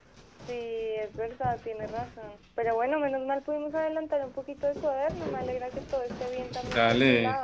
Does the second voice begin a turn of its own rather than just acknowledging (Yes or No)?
Yes